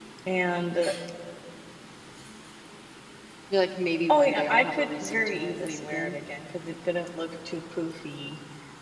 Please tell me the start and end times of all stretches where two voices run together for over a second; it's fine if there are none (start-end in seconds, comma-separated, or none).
4.1-6.2